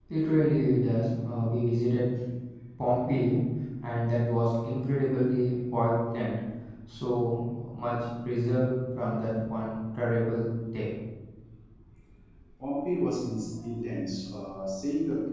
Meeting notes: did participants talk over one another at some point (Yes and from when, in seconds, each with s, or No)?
No